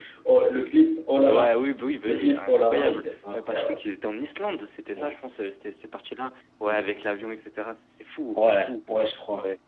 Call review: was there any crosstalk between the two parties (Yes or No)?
Yes